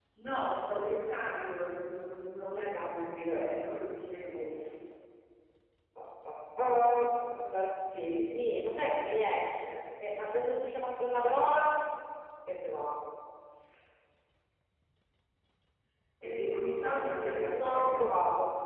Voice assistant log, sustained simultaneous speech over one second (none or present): present